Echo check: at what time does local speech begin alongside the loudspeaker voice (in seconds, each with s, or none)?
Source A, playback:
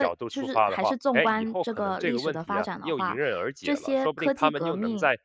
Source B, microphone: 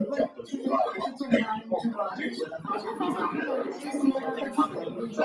2.7 s